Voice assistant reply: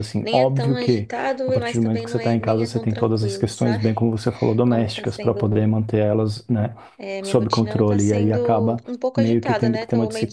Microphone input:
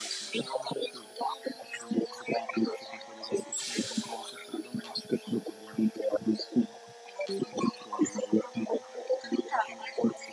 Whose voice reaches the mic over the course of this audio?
echo only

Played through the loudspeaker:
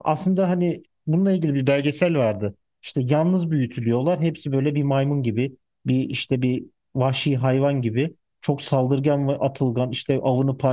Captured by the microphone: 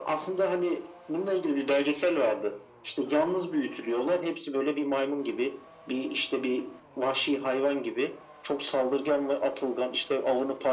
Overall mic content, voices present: echo only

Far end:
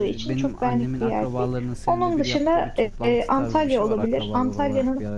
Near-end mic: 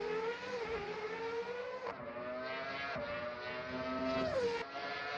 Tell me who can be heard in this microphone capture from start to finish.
neither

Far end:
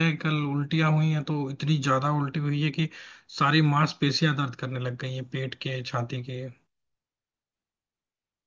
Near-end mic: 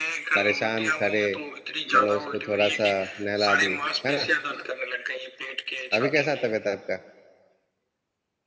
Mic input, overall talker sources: both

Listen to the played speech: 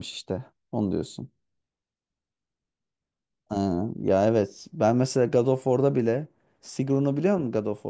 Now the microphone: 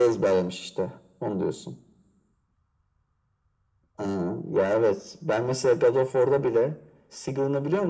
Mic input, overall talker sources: echo only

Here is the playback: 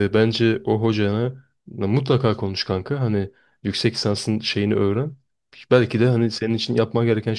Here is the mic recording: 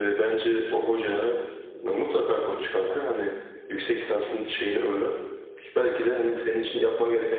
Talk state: echo only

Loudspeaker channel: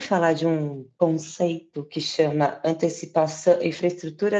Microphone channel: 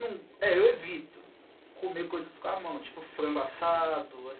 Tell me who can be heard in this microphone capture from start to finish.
user only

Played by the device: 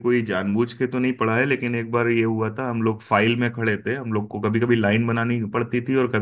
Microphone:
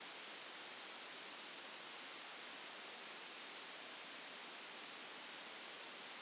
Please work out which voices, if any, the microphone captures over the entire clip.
neither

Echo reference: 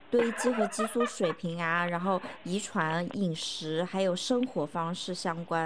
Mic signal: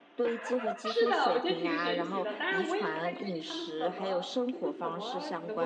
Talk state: both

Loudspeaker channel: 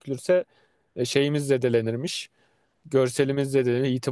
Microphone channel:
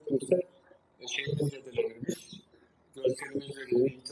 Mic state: echo only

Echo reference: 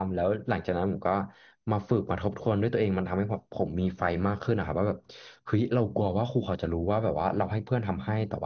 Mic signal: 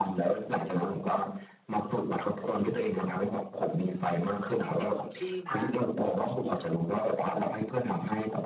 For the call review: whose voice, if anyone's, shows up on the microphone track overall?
both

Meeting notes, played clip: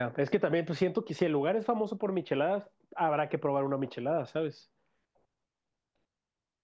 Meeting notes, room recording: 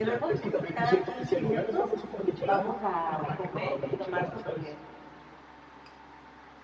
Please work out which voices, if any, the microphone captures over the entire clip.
both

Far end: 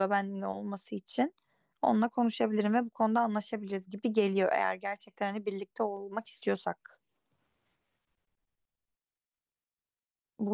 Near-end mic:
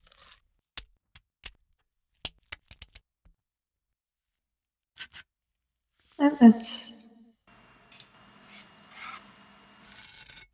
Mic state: user only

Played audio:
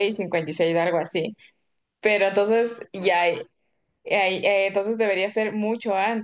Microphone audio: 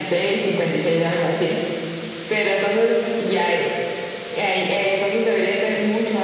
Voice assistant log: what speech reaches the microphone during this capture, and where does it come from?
echo only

